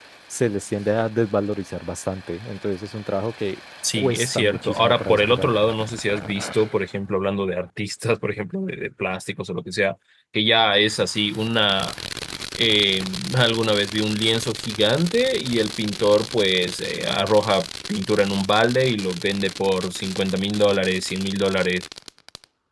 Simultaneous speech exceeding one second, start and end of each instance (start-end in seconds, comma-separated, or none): 3.9-5.5